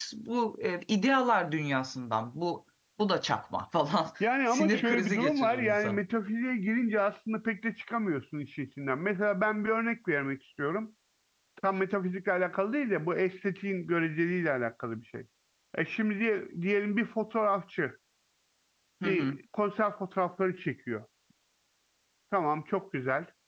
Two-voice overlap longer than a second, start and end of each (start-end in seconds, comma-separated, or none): 4.5-6.0